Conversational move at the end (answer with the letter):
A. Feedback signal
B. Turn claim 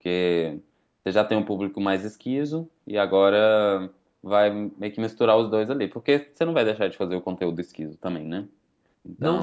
B